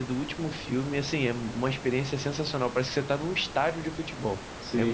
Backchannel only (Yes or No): No